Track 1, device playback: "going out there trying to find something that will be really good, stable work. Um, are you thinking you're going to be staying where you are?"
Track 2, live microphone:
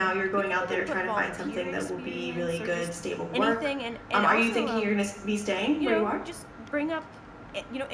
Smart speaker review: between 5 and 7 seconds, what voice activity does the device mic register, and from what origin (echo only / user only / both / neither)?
both